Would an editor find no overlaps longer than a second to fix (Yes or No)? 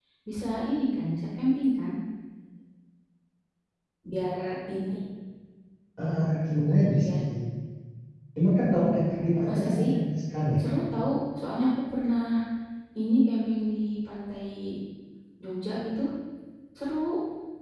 Yes